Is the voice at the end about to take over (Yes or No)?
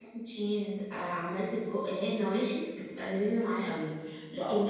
No